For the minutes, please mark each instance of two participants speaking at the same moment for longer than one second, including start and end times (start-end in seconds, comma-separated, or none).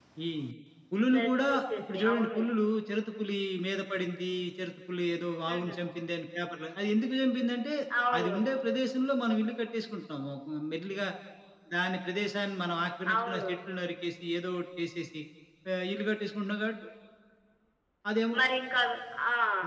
1.1-2.4